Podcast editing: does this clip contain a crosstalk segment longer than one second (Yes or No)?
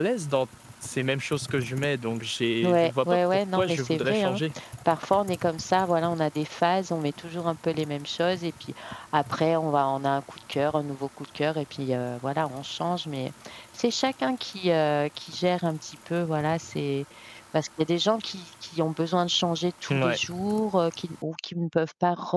Yes